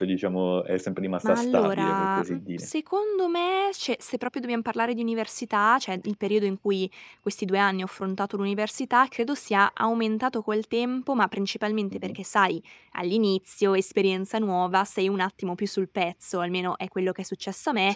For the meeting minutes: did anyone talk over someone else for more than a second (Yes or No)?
Yes